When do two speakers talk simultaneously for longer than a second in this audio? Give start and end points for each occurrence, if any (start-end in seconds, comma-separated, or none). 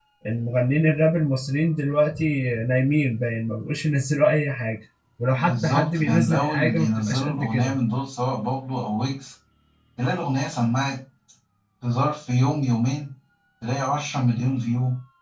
5.3-7.8